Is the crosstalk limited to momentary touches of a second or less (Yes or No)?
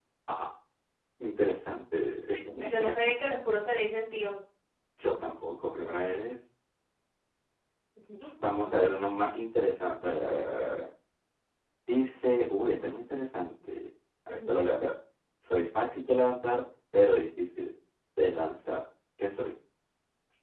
Yes